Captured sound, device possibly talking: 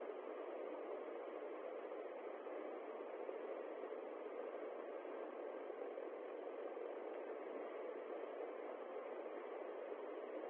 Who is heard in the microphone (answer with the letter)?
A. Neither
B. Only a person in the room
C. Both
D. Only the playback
A